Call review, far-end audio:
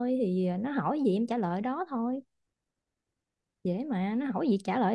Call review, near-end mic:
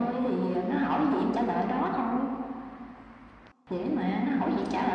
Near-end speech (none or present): none